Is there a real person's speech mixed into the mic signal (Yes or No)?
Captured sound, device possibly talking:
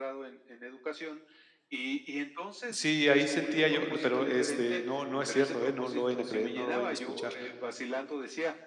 Yes